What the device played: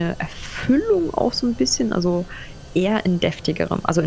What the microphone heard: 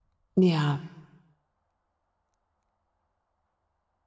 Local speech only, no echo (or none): Ja,